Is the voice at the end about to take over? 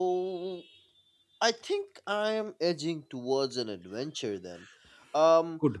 No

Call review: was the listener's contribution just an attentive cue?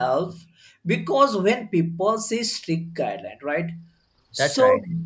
Yes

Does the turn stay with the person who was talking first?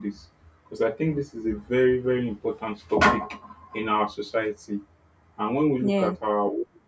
Yes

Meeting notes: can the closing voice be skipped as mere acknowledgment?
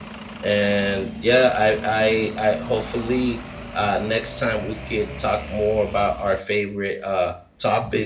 Yes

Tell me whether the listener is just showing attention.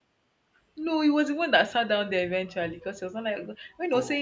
Yes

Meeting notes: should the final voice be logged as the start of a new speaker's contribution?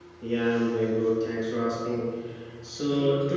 No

